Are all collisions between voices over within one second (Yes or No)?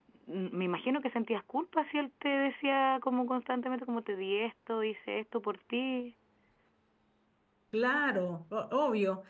Yes